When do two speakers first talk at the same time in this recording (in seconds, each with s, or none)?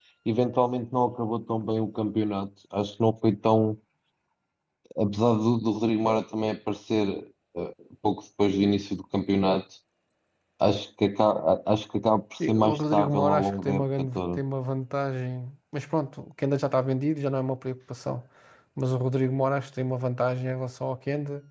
12.4 s